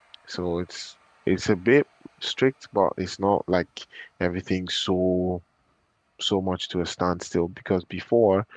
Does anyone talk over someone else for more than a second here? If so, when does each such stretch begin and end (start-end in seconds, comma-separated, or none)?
none